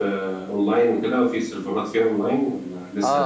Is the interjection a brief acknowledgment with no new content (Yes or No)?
No